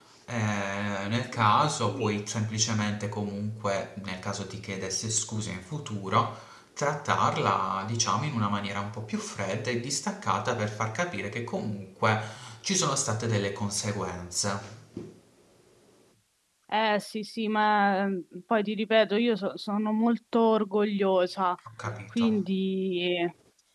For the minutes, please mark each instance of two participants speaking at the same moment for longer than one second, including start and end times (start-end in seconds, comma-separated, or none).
none